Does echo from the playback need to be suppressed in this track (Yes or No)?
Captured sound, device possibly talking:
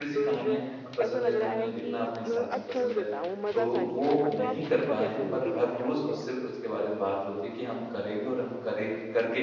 Yes